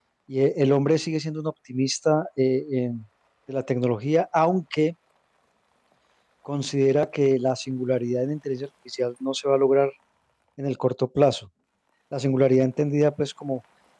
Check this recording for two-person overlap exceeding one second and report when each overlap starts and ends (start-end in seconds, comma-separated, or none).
none